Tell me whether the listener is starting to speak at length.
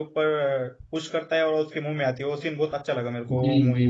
Yes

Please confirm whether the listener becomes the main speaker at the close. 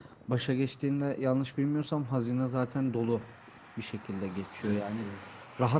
No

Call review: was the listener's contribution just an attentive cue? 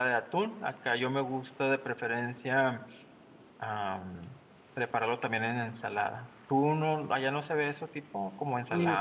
No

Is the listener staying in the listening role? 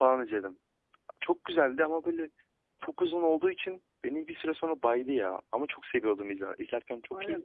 No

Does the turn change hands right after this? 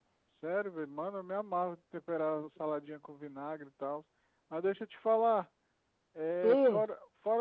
No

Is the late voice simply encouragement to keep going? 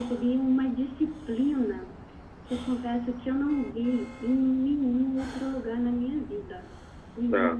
Yes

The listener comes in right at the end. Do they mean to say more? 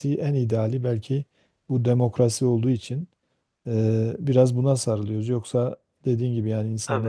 No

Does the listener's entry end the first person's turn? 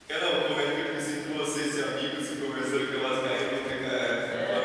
Yes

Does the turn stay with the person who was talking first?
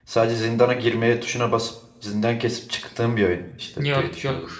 No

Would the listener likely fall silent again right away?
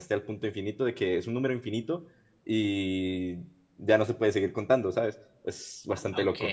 No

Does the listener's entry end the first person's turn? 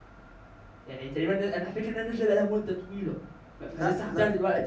Yes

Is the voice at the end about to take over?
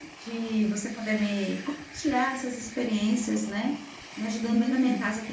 No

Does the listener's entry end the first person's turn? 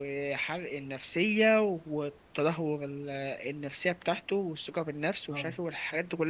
No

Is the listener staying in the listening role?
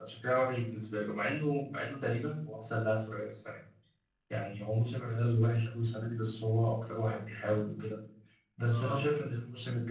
Yes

